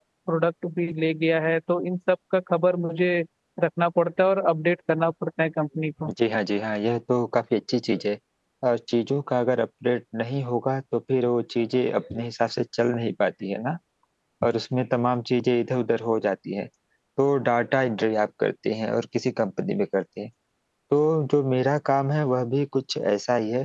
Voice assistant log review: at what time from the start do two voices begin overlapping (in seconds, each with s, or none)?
none